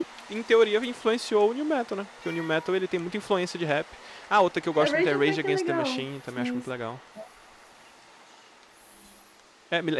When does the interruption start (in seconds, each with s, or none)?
4.8 s